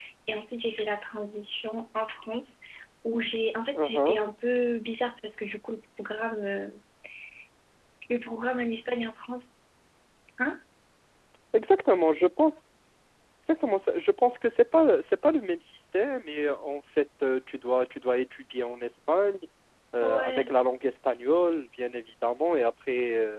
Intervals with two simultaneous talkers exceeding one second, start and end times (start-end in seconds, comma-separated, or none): none